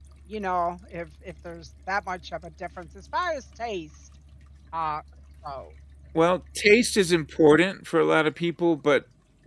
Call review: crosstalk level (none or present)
none